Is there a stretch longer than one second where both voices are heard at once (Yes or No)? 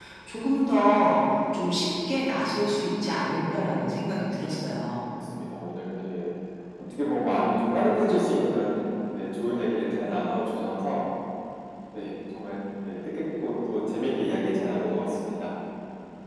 No